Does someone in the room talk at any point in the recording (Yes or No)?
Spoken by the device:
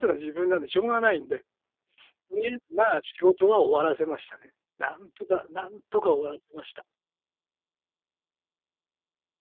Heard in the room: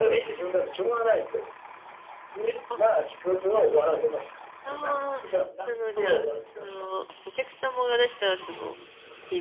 Yes